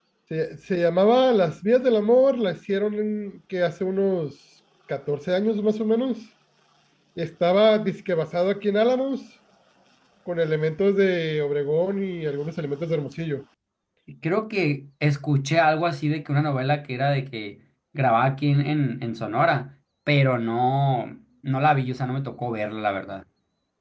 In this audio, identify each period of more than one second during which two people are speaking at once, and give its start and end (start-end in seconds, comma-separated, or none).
none